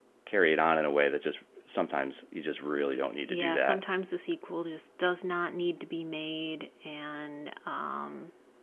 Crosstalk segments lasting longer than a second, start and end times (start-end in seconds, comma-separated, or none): none